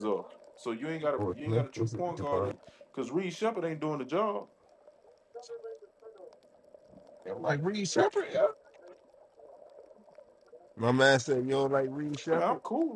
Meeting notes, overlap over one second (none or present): present